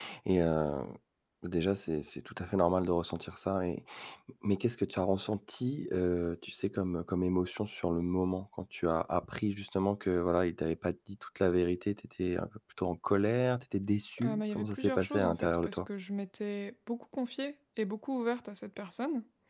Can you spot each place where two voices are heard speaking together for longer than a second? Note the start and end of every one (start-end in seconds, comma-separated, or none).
14.2-15.8